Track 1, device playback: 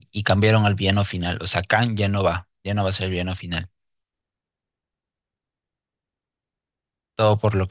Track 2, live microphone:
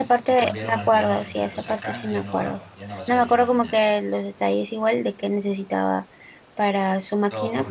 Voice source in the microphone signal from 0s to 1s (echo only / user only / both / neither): both